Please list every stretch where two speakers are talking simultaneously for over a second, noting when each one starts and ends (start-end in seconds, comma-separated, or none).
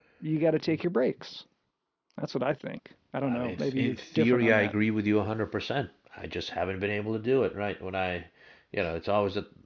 3.2-4.7